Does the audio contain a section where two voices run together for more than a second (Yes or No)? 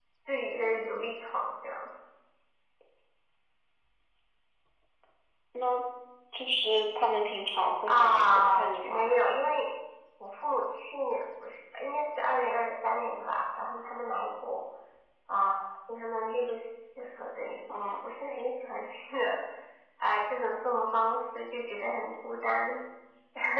Yes